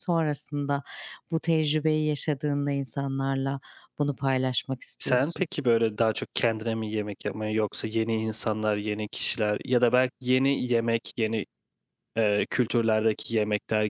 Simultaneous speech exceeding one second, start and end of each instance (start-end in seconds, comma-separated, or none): none